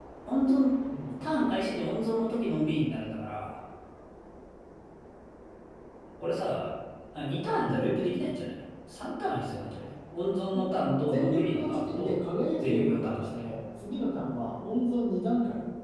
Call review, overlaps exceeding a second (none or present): present